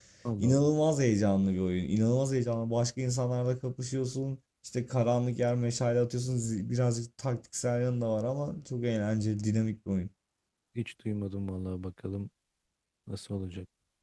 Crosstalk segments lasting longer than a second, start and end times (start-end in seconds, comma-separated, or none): none